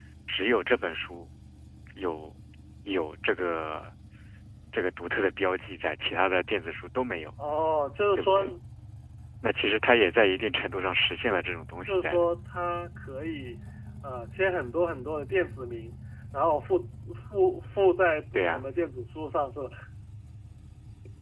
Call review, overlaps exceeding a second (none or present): none